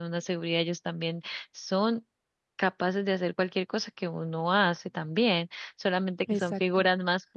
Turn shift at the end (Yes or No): No